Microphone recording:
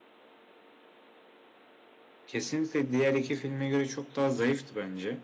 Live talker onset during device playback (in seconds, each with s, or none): 2.2 s